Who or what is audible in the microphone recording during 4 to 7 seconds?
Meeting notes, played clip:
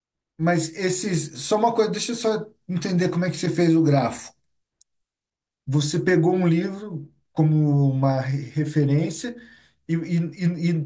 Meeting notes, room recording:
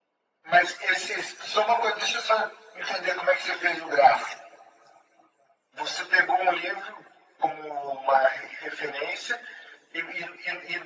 echo only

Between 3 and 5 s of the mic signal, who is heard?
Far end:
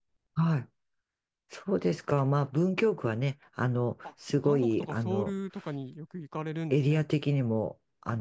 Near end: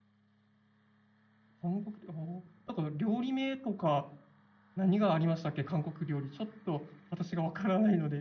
user only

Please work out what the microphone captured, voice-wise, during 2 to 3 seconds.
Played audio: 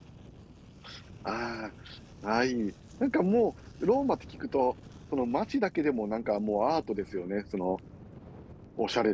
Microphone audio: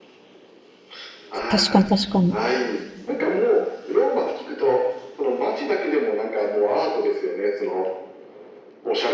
both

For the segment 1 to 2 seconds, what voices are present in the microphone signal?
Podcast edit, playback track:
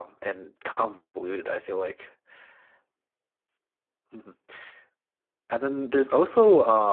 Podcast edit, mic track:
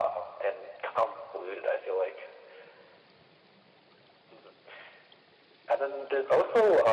echo only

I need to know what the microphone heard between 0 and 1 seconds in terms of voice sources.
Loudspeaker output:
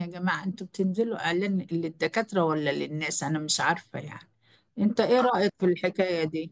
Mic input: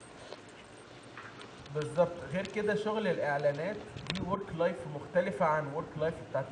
neither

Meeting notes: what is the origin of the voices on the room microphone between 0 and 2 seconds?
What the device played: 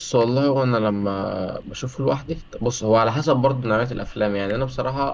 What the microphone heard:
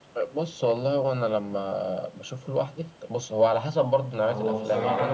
echo only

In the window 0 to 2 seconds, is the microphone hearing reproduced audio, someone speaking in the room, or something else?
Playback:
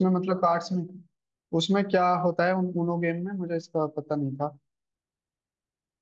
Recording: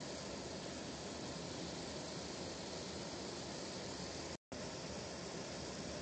neither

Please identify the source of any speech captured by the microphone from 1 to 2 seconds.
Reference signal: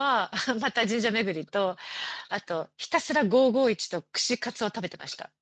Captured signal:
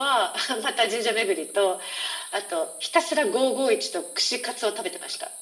echo only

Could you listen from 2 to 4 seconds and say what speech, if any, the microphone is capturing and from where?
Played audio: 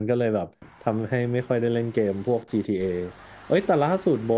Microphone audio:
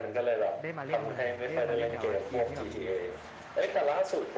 both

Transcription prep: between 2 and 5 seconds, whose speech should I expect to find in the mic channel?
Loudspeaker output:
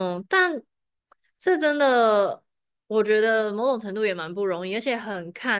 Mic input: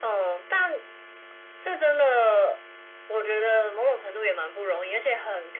echo only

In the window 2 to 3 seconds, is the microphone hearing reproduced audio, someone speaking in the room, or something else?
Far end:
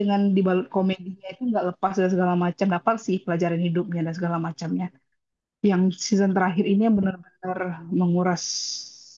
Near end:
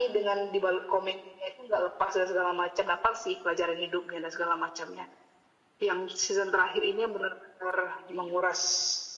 echo only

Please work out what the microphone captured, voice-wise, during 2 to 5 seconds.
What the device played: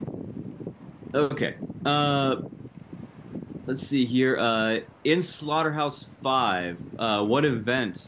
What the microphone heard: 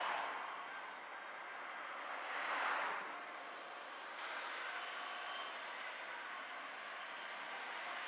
neither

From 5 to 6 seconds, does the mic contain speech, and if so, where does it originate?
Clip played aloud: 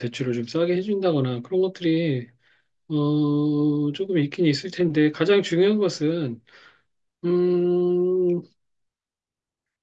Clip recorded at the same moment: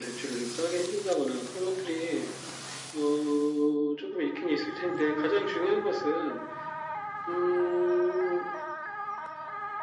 echo only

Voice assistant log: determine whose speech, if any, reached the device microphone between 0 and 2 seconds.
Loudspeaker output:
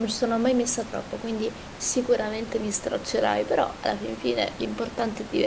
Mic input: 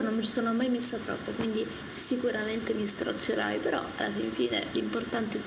echo only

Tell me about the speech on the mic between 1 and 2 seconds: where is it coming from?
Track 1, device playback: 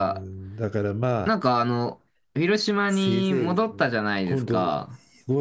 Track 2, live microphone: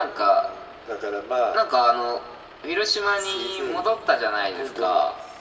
echo only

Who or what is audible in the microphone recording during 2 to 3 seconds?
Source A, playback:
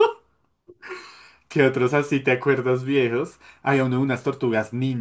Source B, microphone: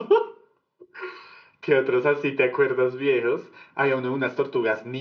echo only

